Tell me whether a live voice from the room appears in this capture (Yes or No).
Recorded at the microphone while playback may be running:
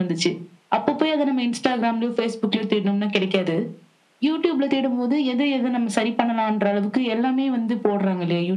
No